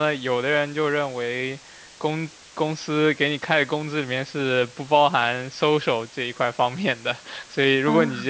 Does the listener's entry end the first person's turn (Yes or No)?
No